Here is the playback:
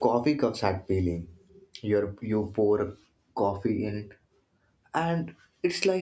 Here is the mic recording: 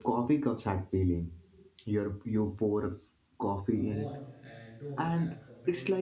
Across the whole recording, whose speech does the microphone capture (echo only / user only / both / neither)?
both